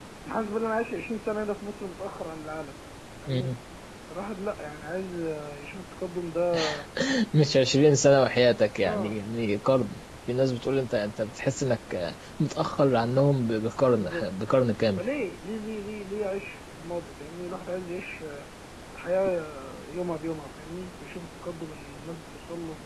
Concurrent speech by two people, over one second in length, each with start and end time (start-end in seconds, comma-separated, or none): none